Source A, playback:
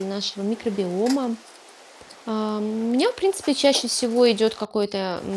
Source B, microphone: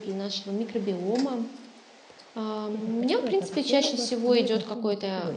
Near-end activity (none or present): present